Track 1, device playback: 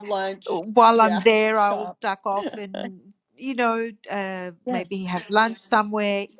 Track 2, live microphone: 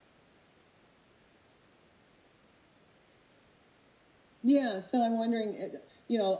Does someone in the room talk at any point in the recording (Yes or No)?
Yes